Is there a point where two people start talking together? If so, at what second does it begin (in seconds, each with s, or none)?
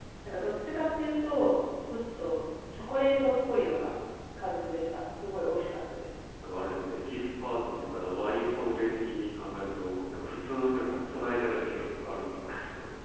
none